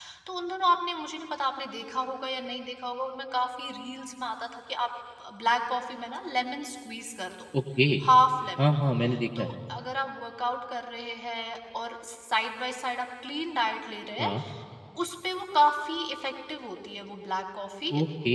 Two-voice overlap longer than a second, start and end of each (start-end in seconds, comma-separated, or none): none